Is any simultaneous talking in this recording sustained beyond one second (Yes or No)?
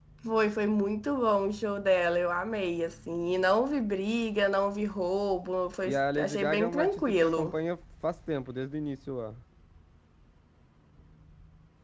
Yes